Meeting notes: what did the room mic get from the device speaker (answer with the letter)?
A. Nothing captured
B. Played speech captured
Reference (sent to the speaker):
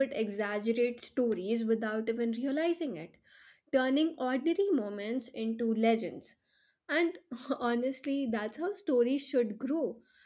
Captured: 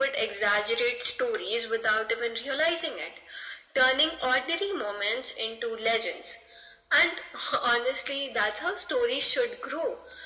B